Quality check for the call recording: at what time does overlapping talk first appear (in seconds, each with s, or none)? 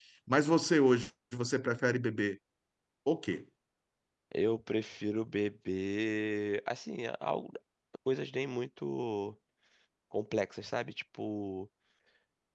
none